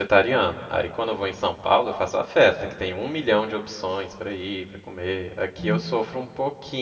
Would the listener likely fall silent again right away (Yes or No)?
Yes